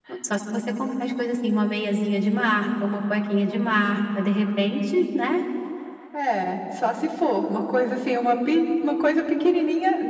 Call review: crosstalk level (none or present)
none